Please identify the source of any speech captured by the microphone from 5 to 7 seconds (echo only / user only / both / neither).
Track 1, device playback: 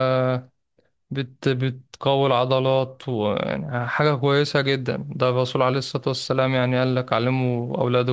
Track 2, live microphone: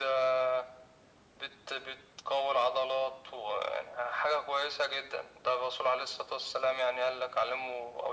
echo only